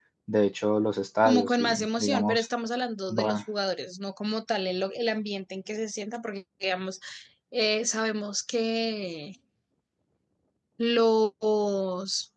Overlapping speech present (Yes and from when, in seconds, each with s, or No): Yes, from 1.2 s